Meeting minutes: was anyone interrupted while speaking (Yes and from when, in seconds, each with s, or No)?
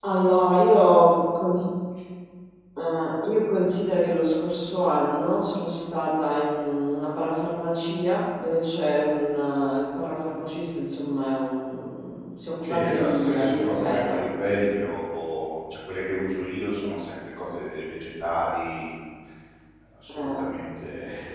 Yes, from 12.6 s